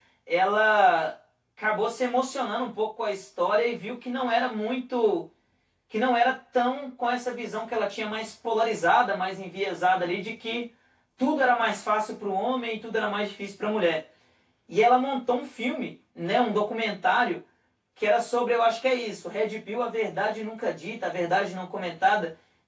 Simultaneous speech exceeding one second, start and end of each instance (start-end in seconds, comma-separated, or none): none